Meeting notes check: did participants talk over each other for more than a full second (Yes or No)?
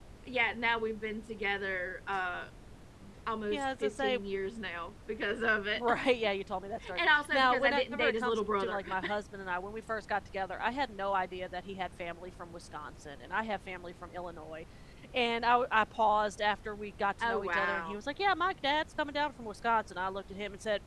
Yes